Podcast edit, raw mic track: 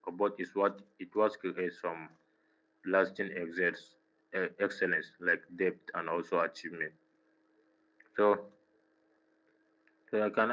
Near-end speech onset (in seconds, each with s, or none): none